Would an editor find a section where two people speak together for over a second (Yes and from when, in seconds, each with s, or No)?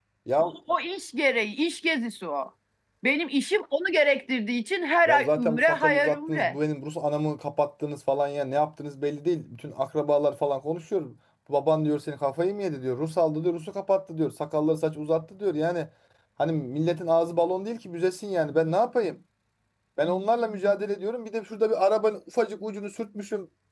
Yes, from 5.1 s